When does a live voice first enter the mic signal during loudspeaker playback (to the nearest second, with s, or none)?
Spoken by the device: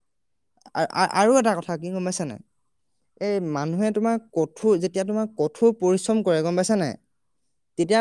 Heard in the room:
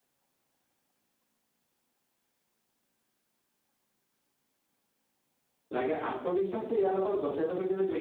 6 s